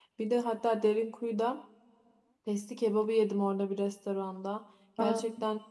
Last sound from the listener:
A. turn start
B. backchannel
B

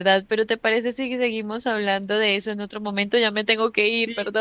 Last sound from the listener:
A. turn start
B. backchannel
A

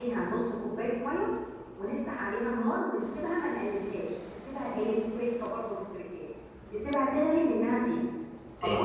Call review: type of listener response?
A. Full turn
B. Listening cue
A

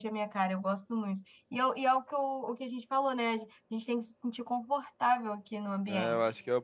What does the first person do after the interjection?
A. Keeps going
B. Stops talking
B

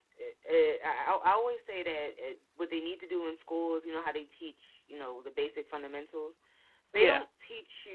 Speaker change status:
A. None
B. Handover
A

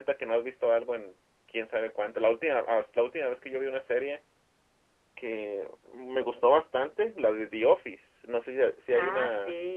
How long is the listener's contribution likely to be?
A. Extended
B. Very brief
A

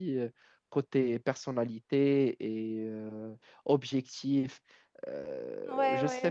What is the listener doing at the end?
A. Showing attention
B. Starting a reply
B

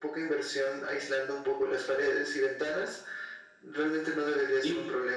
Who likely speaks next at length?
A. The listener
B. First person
A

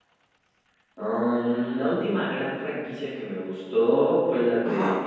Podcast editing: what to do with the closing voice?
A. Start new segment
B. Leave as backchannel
B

